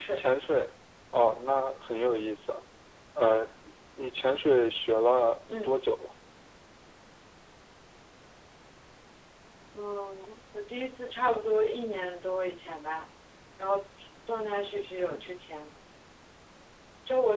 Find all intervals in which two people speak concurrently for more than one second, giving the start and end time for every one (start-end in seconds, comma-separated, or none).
none